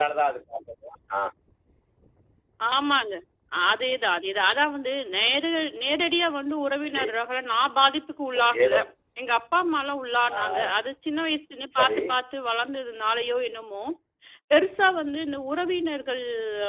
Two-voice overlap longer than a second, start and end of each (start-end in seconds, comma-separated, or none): none